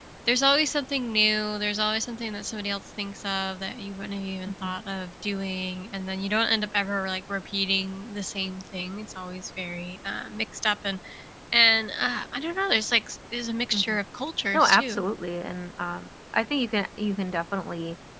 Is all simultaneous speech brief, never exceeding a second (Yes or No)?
Yes